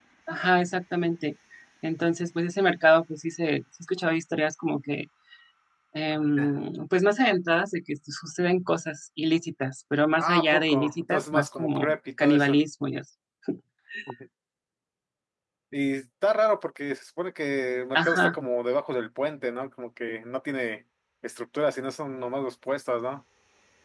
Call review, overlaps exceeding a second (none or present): present